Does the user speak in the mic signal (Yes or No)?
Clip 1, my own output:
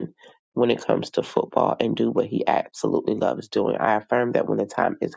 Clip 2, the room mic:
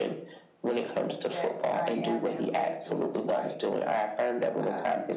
Yes